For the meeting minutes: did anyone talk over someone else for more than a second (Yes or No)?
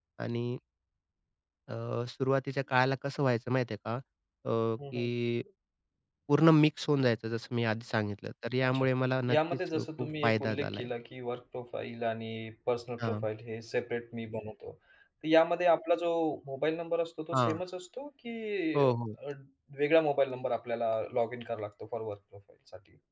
Yes